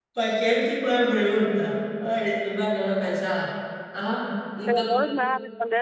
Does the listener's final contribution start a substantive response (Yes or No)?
Yes